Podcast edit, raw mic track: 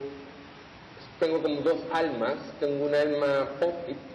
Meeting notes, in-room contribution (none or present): none